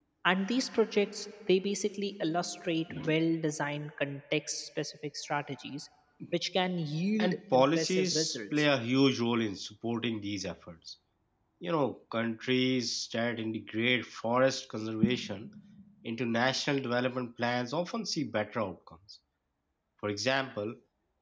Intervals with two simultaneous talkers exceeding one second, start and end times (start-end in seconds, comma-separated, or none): 7.2-8.7